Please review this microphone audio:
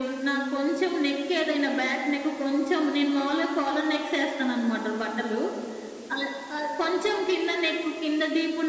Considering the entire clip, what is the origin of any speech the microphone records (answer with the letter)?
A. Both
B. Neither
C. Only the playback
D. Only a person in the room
C